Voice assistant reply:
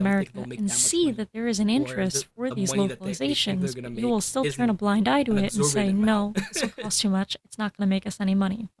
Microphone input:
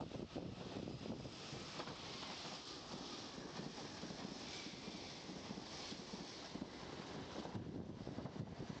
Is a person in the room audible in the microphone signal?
No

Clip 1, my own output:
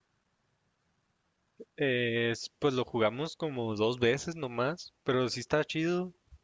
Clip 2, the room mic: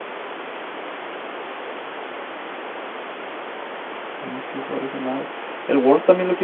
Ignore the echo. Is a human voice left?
Yes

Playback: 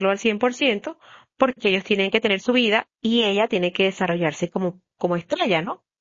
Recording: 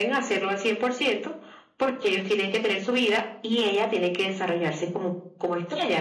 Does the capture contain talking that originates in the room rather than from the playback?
No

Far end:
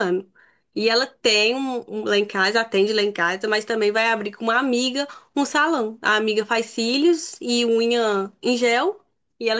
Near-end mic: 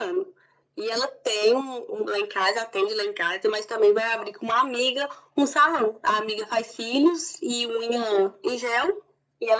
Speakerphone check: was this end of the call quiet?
Yes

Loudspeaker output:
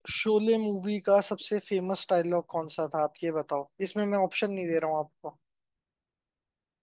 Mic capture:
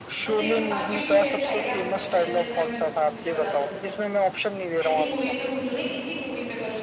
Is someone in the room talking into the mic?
Yes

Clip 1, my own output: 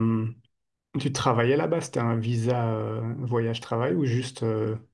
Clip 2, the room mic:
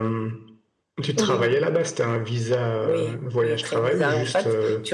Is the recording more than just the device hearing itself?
Yes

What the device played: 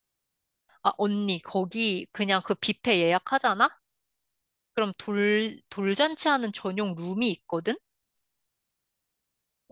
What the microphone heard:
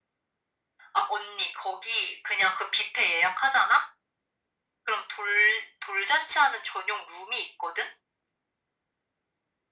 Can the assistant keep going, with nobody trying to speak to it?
Yes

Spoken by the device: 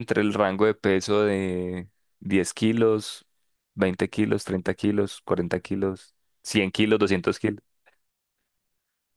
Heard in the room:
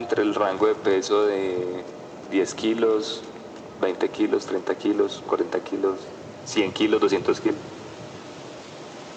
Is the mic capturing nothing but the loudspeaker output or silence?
Yes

